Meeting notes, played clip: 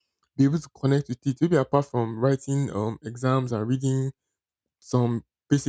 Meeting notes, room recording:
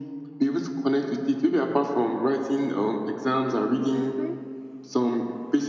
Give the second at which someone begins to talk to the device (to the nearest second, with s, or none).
4 s